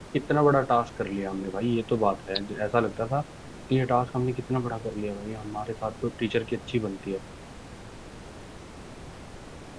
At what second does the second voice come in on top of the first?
none

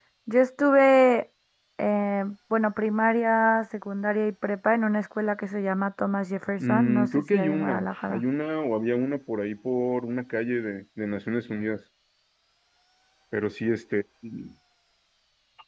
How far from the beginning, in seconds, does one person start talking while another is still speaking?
7 s

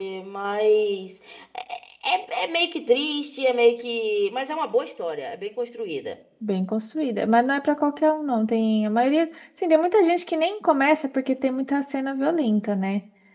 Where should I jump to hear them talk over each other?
none

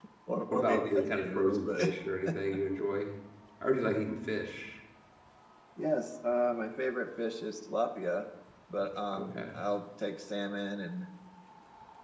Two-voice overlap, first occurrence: 1 s

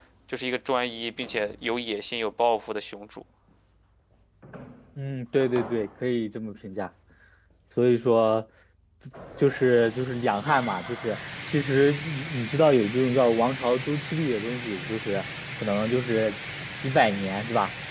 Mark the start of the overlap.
none

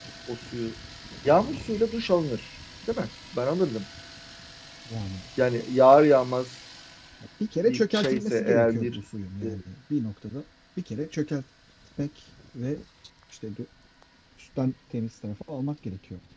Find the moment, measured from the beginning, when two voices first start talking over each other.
8 s

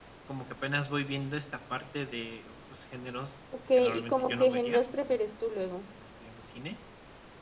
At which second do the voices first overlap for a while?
4 s

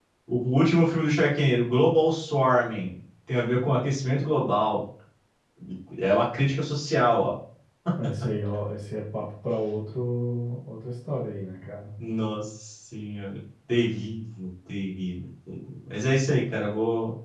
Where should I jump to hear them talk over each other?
none

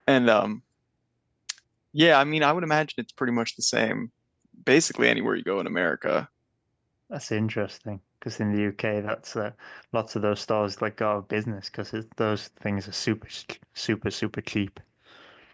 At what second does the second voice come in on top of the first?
none

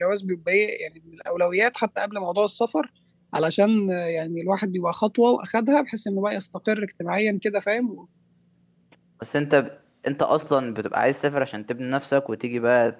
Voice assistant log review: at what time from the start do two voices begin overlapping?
none

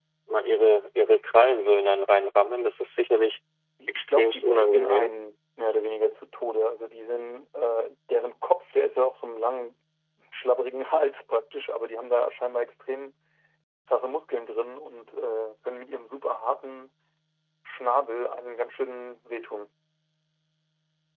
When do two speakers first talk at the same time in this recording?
4 s

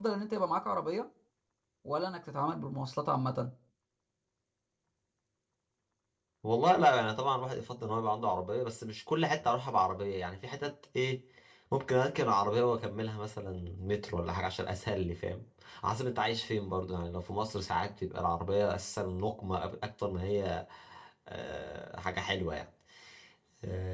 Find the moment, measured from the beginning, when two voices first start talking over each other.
none

